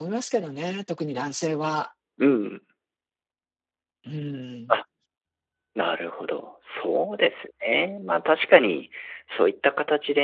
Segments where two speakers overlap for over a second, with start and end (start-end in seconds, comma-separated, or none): none